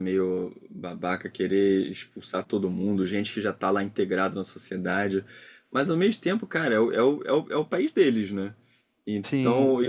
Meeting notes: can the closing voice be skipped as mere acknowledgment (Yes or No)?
Yes